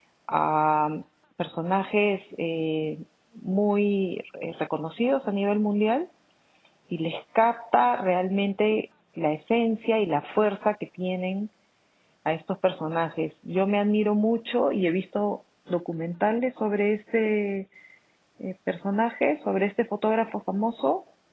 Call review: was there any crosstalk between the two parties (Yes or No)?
No